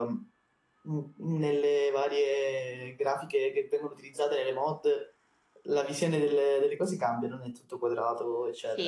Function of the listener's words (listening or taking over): taking over